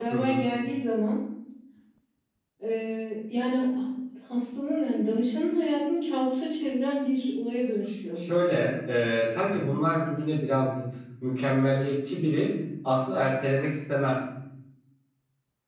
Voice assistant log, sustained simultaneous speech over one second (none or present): none